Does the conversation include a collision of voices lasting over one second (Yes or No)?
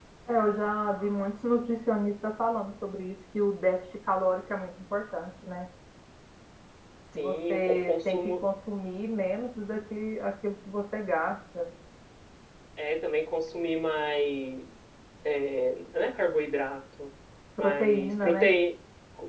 Yes